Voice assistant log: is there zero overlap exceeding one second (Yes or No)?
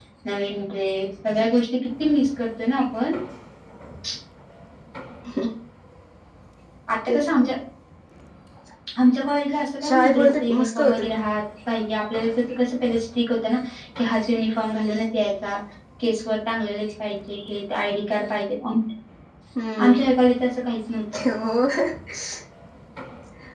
No